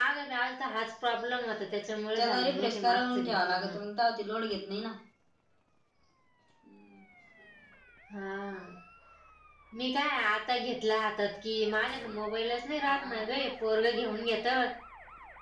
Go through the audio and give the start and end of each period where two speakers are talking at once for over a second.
2.2-3.8

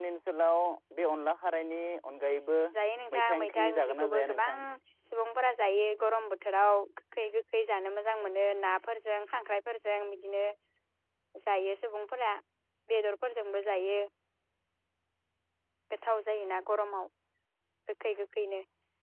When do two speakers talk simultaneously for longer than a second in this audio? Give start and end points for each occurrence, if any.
3.2-4.5

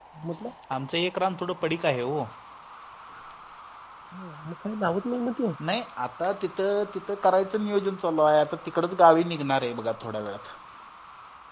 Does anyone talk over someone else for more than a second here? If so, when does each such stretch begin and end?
none

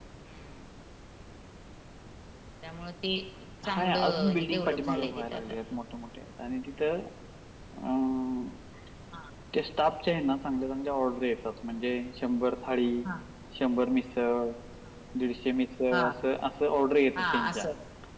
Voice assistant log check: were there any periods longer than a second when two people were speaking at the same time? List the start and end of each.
3.6-5.4

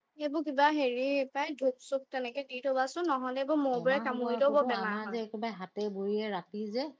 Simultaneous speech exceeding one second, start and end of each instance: 3.7-5.2

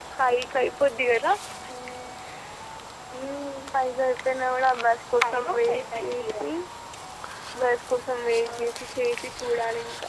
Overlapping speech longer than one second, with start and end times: 5.2-6.5

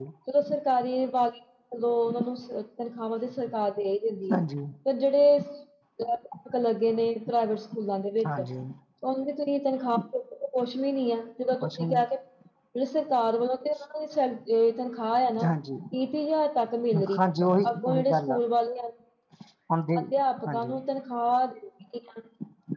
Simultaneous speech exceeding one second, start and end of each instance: 17.2-18.4

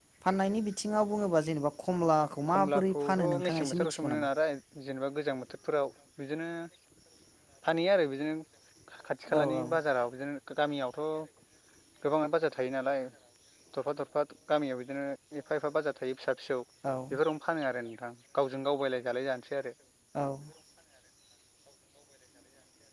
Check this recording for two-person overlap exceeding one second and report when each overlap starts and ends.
2.5-4.3

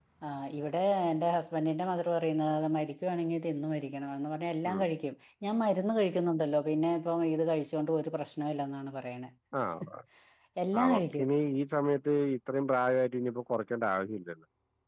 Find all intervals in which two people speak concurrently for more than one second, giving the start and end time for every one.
none

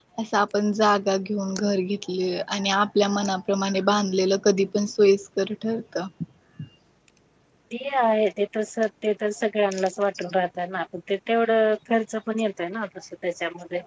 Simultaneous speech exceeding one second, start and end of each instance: none

